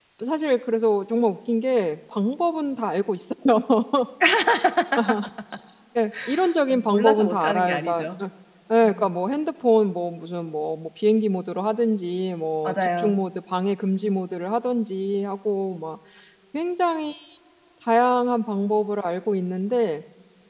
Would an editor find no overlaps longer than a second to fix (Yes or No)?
No